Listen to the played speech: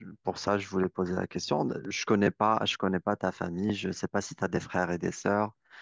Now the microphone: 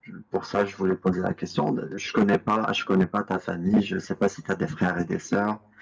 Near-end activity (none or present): none